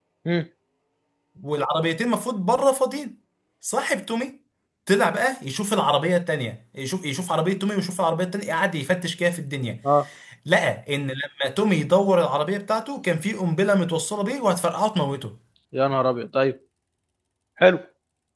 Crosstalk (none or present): none